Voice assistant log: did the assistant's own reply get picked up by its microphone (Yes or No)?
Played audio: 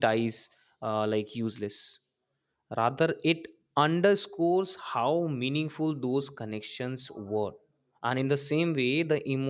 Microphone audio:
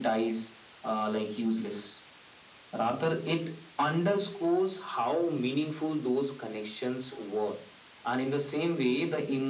Yes